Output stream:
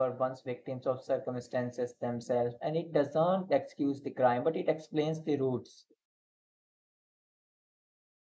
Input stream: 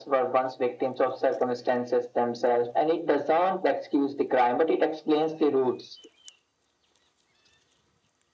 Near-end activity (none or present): none